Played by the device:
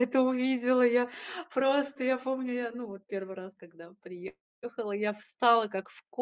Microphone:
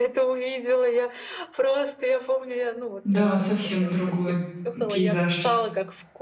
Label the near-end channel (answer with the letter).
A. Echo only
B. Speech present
B